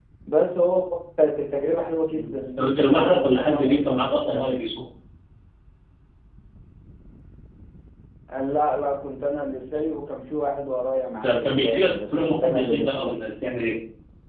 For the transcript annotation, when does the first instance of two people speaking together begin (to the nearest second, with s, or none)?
2 s